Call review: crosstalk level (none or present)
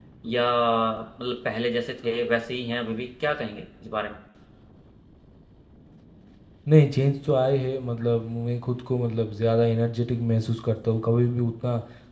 none